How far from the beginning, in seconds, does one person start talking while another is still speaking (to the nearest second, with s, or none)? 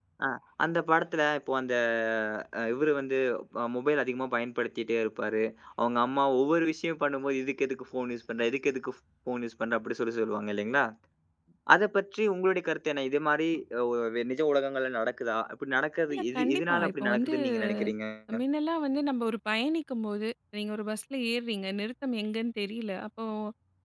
16 s